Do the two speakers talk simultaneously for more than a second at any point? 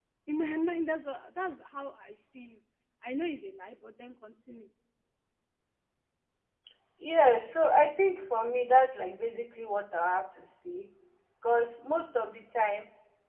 No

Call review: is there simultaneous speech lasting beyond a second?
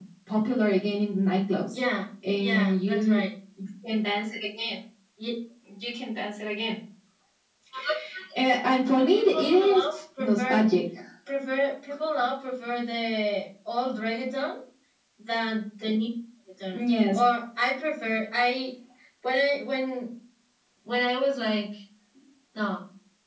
Yes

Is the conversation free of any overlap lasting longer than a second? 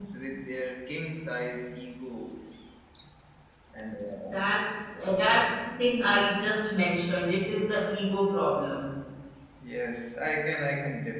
Yes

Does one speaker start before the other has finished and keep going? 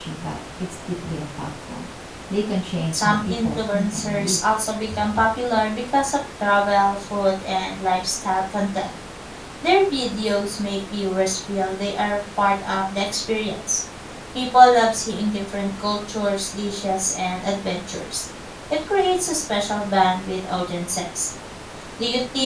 Yes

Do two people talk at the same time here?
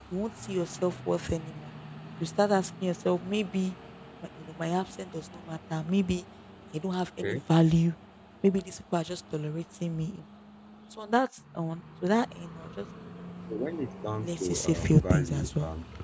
Yes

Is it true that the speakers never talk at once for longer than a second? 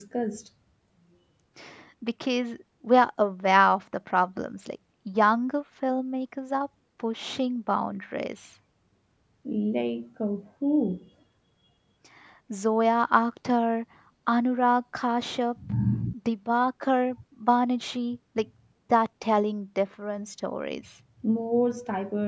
Yes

